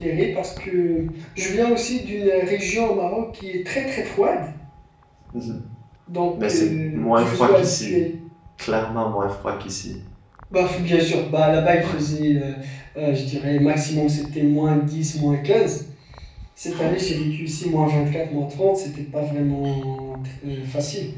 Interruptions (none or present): present